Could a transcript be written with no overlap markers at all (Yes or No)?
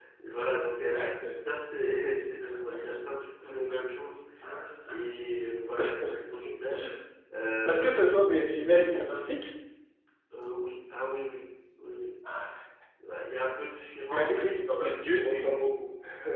No